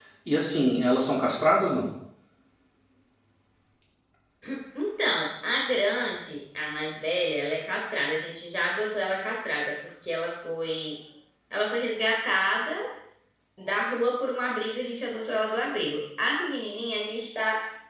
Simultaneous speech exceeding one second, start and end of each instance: none

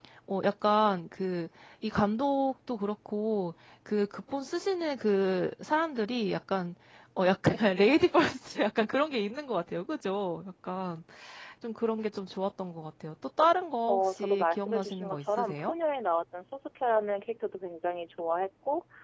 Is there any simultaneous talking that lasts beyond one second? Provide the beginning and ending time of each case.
13.9-15.7

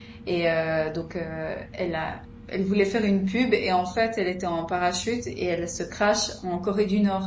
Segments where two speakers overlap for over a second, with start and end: none

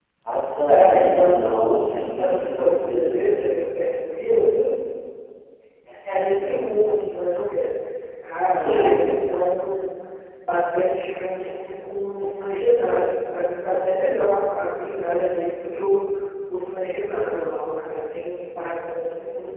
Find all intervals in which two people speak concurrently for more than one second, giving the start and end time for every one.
0.7-3.2

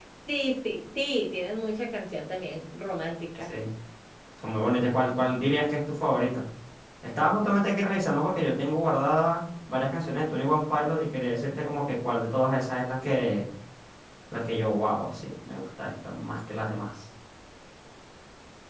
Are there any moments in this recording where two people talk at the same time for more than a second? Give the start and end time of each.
none

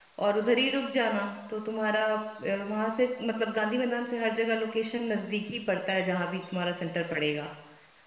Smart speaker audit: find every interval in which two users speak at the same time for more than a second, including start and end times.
none

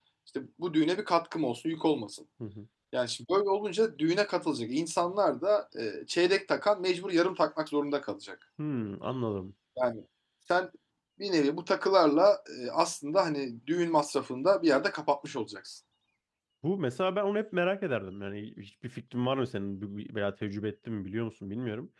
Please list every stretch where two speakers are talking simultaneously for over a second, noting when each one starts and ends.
none

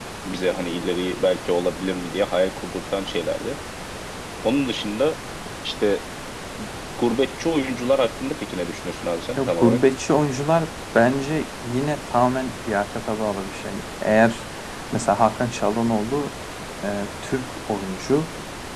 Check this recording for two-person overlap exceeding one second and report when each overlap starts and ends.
none

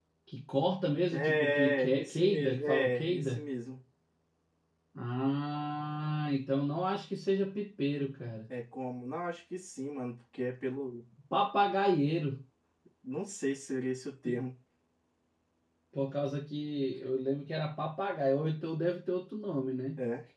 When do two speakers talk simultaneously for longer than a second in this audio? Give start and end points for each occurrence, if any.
1.1-3.5

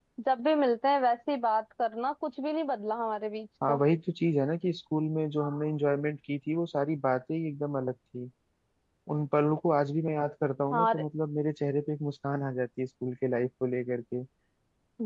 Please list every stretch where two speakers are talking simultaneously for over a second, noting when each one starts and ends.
none

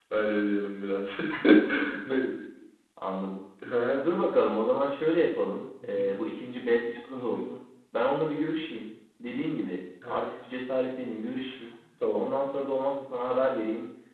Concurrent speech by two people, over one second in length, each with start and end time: none

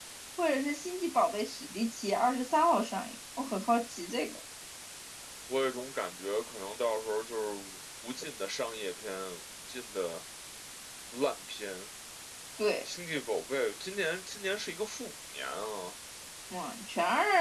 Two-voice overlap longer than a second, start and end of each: none

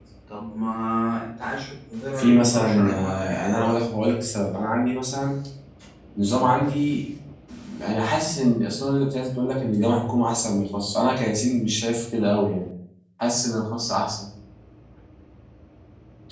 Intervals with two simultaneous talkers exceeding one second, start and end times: 2.2-3.8

